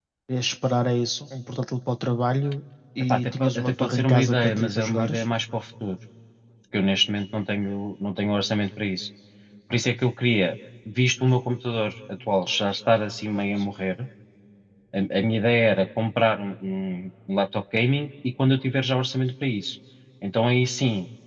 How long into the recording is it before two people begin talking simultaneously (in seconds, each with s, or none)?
3.0 s